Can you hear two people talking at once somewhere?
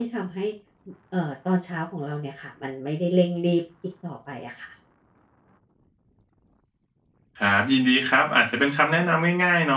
No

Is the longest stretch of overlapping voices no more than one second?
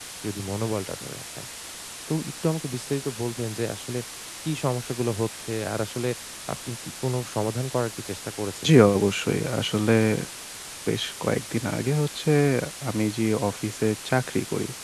Yes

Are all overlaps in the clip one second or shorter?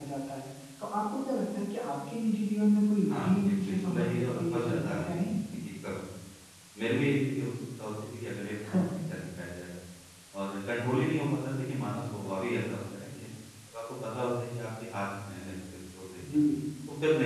No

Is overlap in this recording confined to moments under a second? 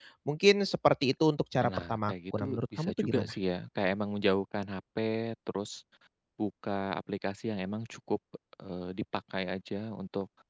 No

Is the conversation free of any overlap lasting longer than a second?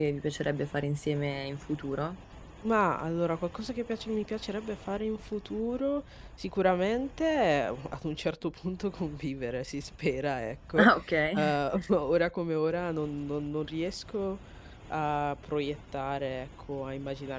Yes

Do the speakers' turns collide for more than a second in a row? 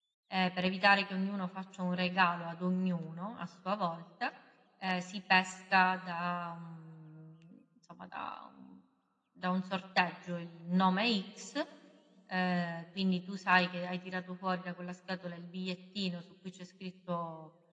No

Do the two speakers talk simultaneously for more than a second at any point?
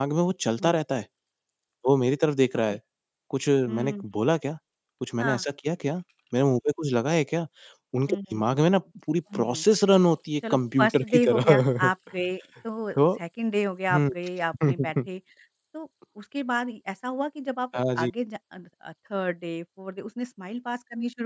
Yes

